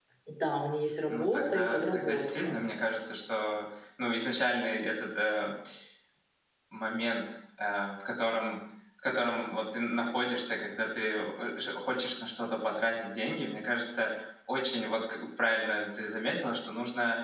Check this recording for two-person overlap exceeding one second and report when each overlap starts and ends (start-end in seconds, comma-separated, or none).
1.1-2.6